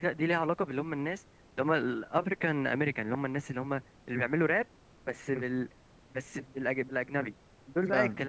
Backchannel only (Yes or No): Yes